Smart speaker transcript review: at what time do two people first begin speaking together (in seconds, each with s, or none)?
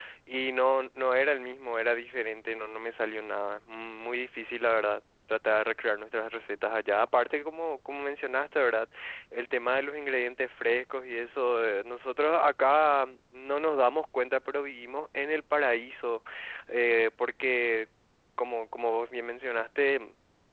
none